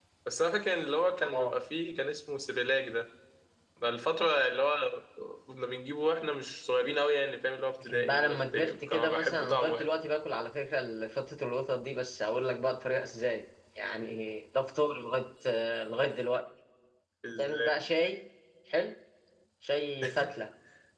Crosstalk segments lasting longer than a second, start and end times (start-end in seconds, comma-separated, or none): 7.8-9.9